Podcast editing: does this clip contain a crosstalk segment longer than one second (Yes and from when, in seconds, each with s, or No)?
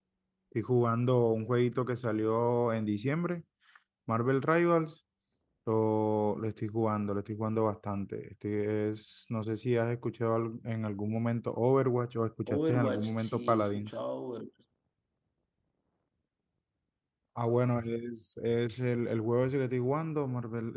Yes, from 12.5 s